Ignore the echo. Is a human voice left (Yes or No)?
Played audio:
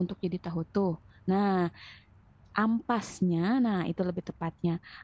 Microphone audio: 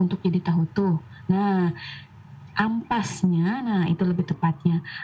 No